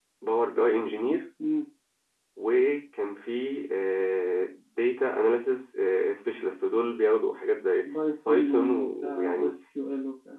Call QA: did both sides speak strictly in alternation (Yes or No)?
No